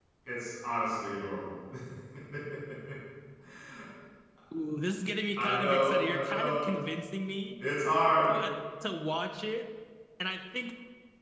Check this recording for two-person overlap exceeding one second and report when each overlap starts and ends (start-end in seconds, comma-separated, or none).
5.4-6.7